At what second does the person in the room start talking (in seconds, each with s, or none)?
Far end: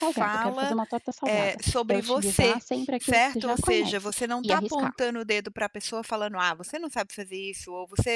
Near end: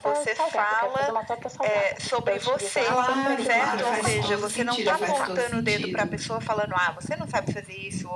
2.8 s